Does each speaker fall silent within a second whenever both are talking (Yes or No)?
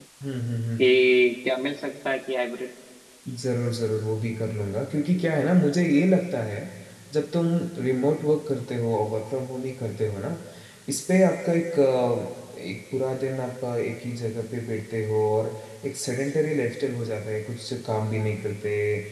Yes